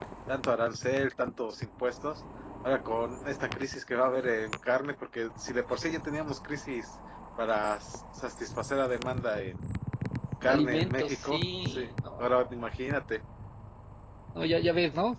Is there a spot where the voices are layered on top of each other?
Yes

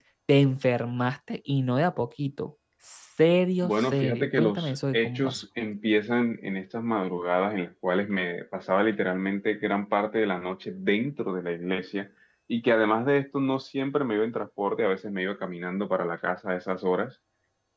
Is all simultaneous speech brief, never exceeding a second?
No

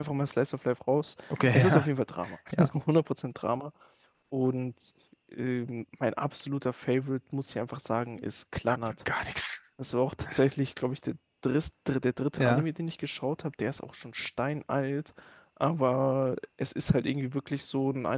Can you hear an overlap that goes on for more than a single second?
No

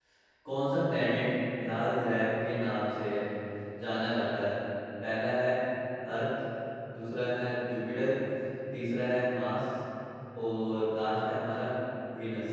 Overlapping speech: No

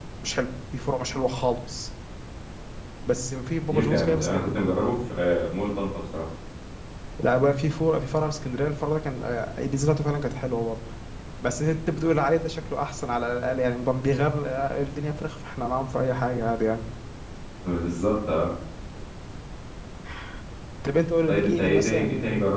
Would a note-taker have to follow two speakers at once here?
Yes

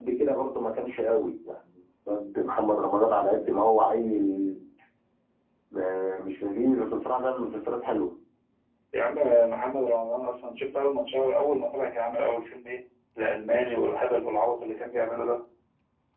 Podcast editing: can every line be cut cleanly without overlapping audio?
Yes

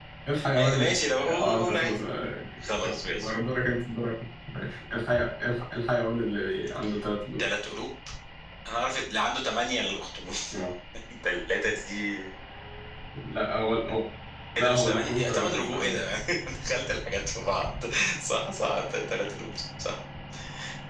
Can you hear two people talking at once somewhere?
Yes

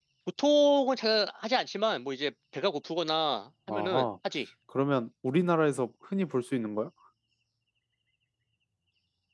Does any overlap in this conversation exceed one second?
No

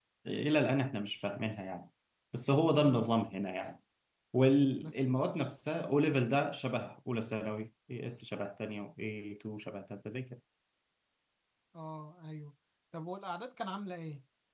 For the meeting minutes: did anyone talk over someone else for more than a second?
No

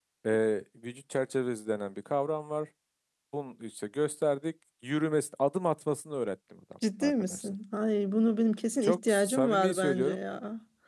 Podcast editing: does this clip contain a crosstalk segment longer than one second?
Yes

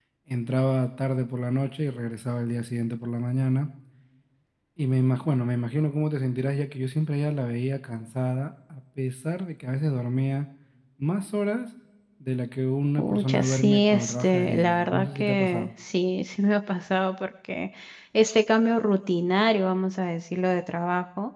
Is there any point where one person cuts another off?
Yes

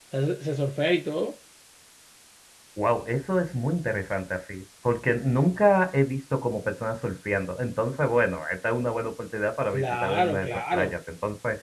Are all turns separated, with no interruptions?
No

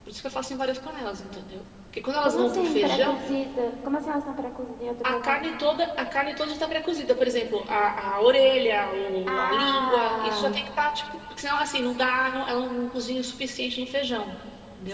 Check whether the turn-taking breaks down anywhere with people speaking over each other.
Yes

